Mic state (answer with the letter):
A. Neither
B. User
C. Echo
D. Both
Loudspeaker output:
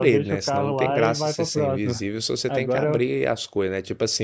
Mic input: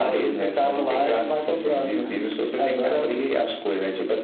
C